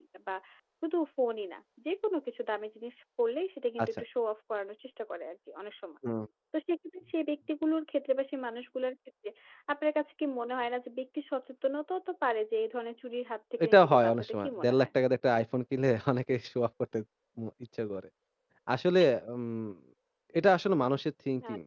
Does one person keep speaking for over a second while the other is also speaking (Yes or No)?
Yes